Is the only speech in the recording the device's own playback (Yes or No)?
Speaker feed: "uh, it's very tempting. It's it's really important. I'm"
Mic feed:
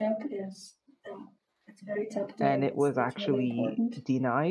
No